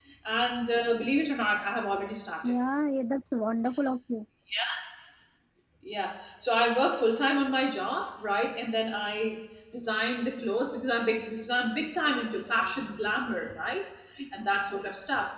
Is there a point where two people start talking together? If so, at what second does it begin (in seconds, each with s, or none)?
none